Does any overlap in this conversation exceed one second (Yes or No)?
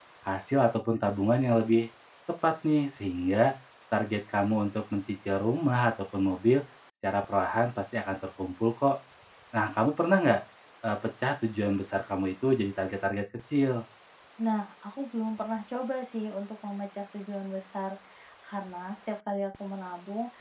No